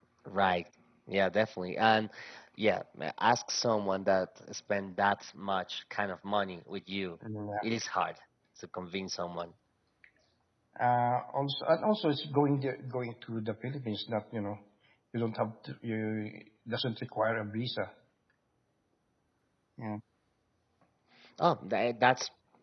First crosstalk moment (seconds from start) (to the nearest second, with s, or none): none